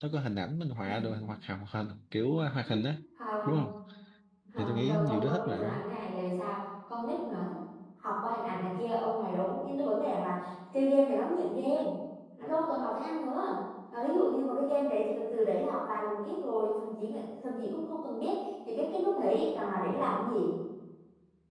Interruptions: present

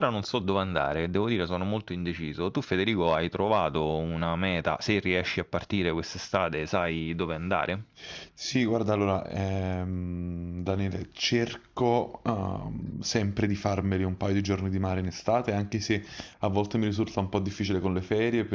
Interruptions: none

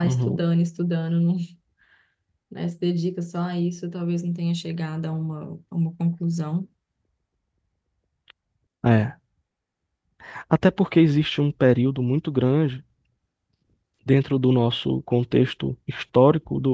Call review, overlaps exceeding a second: none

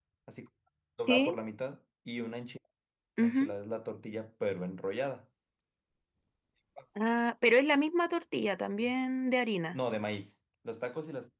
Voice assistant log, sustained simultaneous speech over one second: none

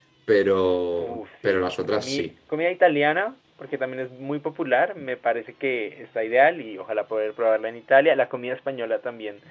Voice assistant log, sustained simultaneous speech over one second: present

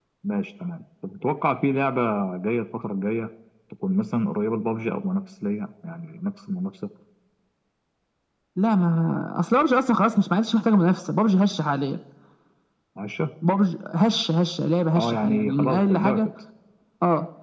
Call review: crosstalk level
present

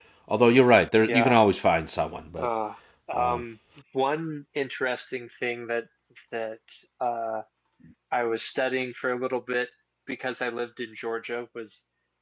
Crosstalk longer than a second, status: none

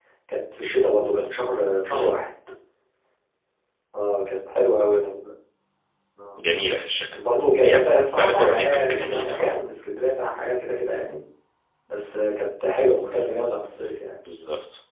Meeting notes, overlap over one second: present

